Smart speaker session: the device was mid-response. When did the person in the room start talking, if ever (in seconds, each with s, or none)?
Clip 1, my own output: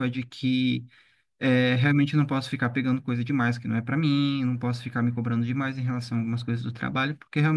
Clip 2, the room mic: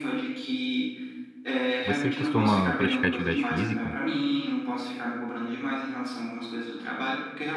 1.8 s